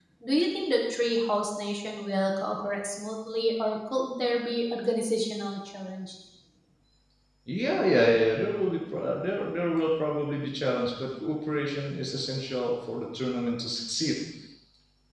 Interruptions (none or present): none